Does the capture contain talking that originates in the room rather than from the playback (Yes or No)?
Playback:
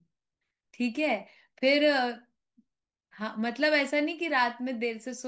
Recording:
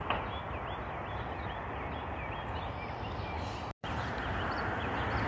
No